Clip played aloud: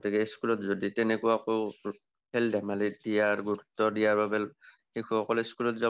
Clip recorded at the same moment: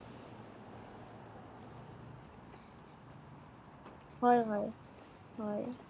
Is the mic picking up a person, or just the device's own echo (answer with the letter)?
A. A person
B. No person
A